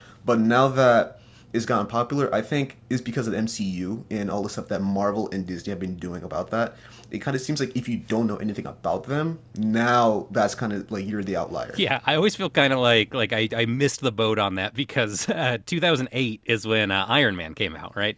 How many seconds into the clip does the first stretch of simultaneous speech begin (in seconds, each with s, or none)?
none